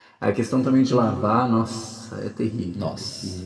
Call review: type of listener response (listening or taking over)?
taking over